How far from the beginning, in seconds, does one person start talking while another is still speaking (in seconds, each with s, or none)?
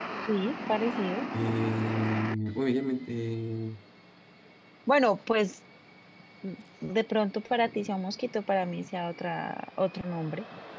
none